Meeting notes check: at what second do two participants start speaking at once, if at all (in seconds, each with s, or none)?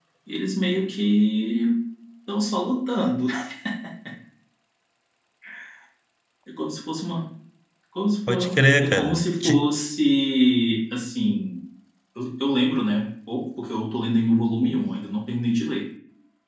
8.3 s